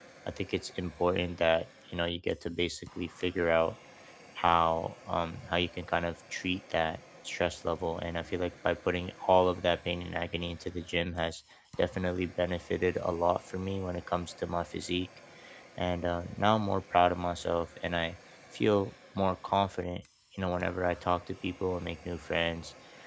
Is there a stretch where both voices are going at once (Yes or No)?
No